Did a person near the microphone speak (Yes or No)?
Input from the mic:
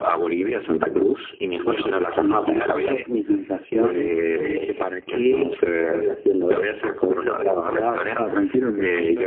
No